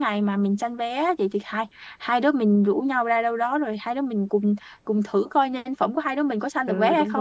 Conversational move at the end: taking over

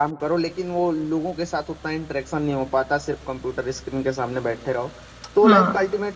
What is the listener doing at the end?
listening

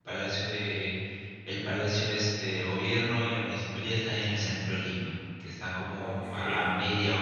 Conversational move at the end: listening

